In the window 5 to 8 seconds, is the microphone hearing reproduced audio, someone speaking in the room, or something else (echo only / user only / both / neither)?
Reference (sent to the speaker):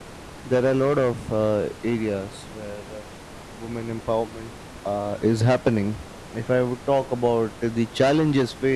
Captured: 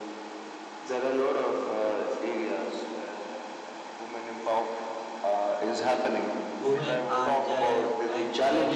both